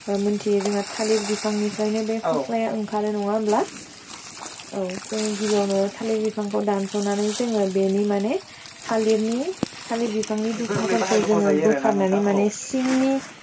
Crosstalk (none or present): present